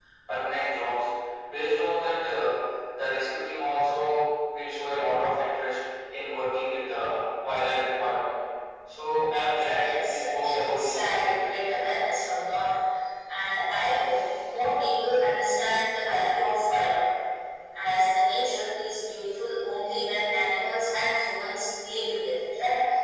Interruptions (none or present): present